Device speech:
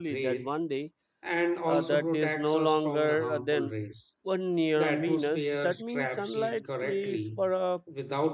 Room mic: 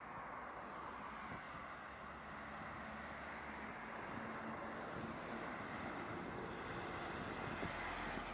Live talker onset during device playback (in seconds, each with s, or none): none